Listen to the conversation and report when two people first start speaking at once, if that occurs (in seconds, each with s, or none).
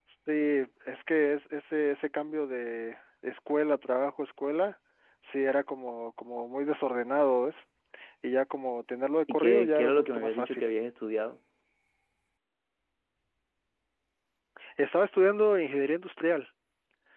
9.3 s